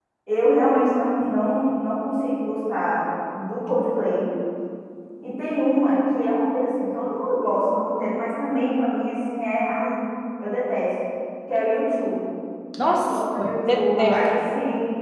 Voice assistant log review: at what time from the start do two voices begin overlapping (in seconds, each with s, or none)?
12.9 s